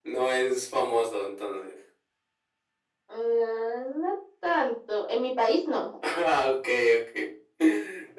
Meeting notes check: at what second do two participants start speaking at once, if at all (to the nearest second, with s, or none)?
none